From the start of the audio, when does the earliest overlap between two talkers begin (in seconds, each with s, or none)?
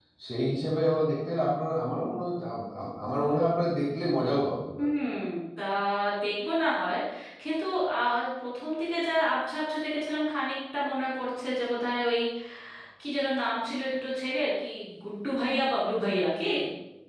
none